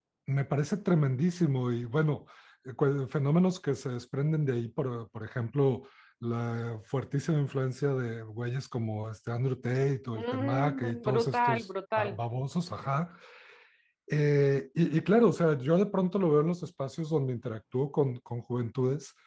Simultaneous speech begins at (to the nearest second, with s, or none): 10 s